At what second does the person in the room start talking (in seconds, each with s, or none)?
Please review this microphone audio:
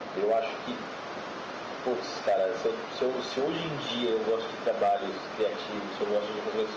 none